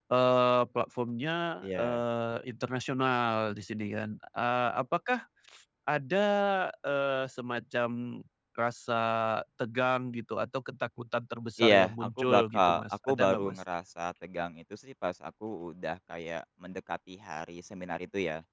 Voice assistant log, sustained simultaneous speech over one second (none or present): present